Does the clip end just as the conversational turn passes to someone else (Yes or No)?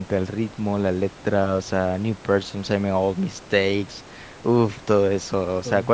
No